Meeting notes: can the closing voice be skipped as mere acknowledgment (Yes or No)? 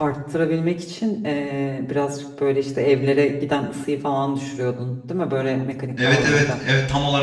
No